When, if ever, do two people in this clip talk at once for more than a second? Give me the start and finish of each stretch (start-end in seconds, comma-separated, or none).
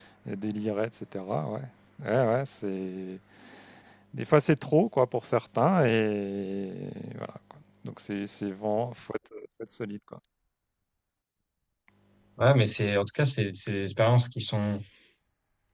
none